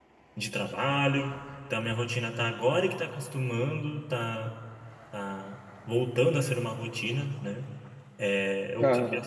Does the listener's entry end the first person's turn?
No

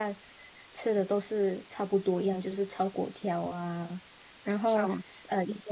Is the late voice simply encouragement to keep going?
Yes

